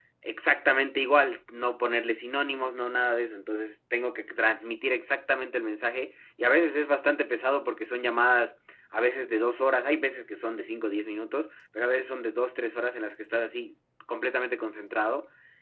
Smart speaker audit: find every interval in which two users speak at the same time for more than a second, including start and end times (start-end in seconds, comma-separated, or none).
none